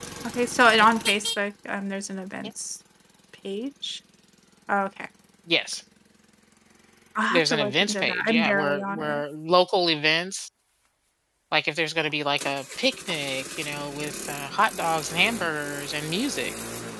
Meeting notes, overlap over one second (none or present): present